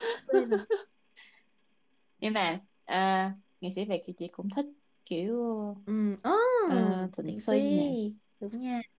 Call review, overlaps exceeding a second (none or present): present